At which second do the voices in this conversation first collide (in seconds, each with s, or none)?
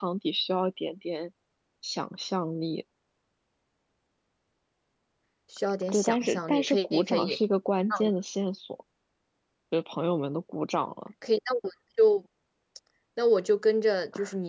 5.9 s